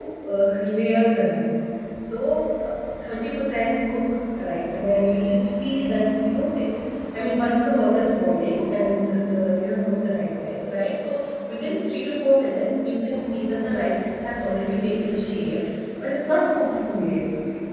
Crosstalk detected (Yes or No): No